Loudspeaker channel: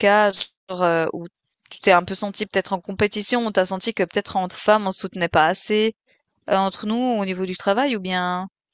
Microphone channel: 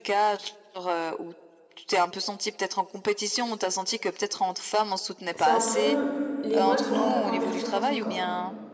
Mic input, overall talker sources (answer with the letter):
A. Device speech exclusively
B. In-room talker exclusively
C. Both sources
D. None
C